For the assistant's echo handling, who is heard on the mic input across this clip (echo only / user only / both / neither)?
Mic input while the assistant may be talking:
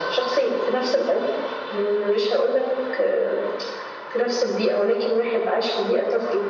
echo only